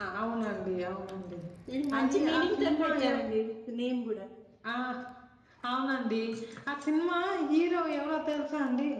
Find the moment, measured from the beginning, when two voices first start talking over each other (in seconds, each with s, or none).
2.0 s